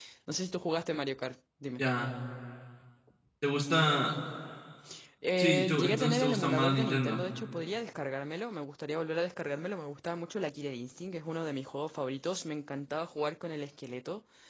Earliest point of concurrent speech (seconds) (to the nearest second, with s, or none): 5 s